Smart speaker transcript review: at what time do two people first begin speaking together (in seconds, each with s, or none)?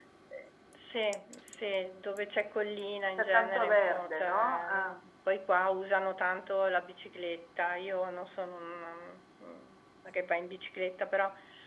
3.2 s